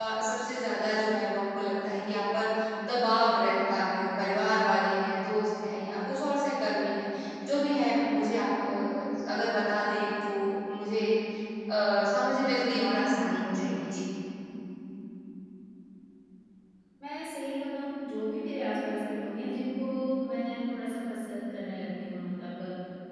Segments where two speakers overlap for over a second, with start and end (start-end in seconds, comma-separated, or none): none